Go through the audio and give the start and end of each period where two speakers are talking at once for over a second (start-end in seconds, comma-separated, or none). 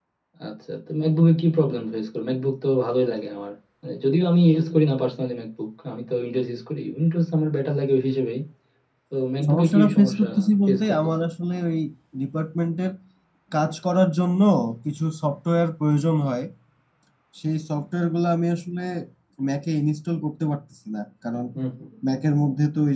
9.5-11.1